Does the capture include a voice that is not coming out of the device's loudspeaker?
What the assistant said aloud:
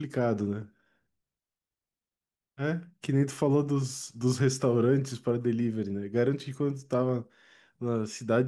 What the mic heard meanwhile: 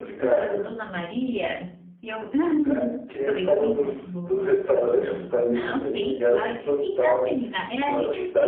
Yes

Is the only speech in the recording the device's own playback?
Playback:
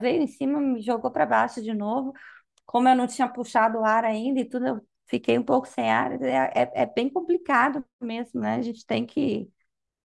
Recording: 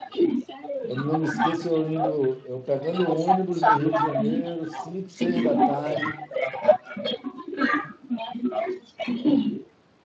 No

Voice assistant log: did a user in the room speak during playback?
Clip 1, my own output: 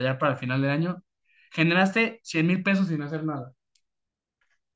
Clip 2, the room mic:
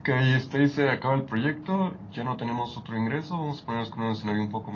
Yes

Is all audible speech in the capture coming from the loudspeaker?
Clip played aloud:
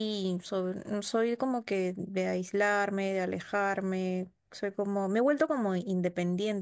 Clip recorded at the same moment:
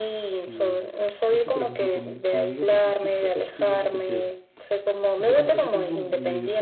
No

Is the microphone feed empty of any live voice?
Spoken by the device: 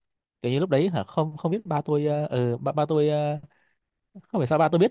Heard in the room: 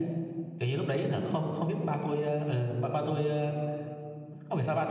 Yes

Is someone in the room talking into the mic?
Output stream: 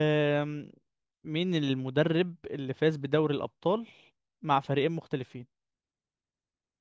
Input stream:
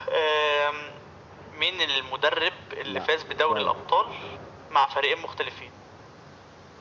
Yes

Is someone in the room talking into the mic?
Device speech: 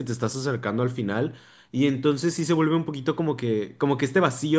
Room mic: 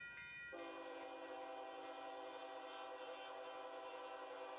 No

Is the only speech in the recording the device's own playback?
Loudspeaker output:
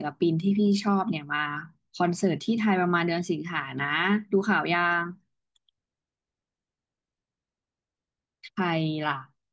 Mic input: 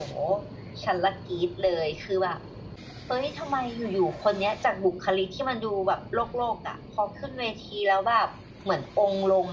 No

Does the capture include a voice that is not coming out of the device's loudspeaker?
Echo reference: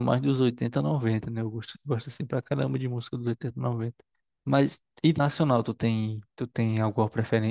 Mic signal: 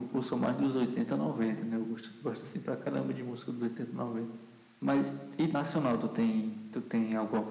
No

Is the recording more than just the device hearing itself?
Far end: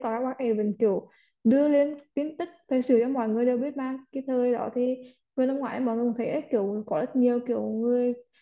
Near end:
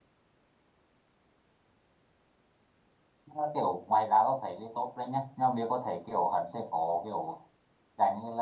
Yes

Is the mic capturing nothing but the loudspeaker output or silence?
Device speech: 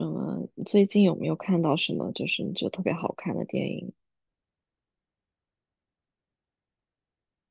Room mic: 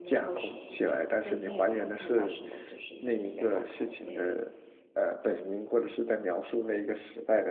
No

